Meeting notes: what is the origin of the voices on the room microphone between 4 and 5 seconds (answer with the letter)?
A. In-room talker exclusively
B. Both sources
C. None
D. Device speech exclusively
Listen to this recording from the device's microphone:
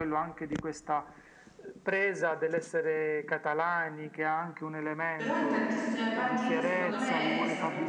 D